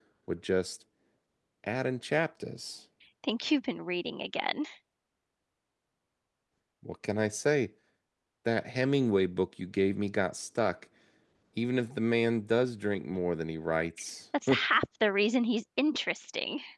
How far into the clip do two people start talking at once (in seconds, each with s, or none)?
none